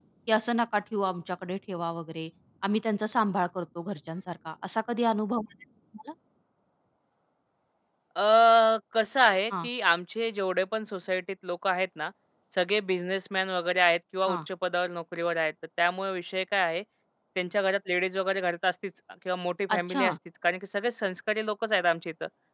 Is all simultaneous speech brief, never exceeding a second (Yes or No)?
Yes